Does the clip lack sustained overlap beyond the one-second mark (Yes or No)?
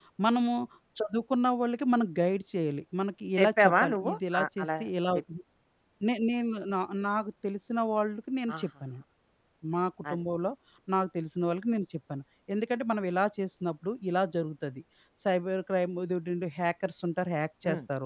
No